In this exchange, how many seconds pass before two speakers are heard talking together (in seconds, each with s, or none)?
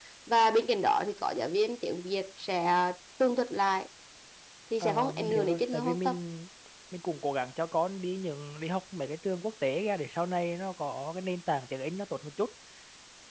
4.8 s